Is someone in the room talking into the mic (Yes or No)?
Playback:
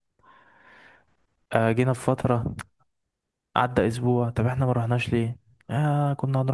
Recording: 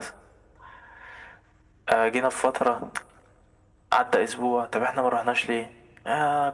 No